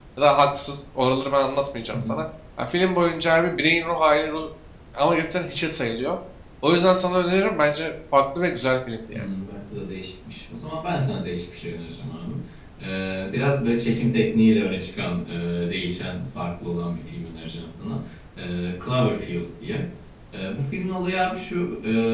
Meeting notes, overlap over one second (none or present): none